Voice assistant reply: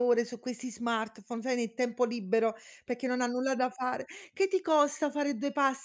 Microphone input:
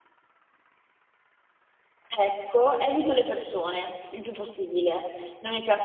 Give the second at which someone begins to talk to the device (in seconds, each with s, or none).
2.1 s